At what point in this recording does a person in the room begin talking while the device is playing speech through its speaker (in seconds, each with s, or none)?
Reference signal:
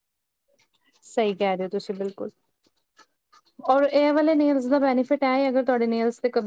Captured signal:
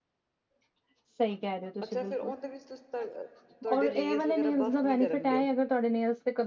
1.8 s